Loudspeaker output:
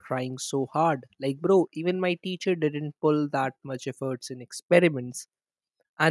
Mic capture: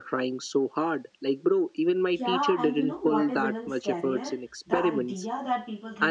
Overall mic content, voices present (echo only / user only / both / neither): both